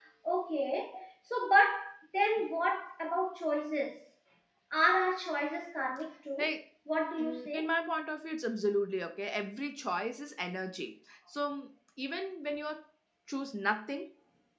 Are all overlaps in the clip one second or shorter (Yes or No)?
Yes